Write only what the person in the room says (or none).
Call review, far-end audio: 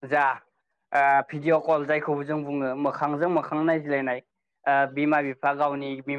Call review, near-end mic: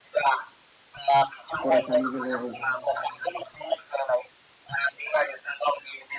फरायसानि बेलायाव ओ